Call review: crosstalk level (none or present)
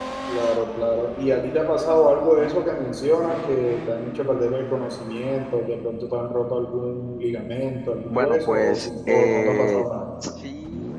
present